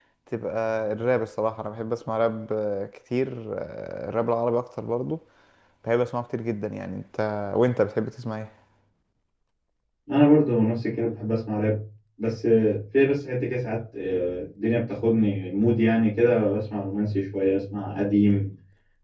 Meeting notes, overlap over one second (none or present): none